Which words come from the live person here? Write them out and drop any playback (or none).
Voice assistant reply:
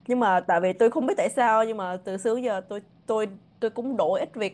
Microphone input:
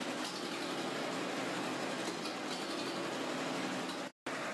none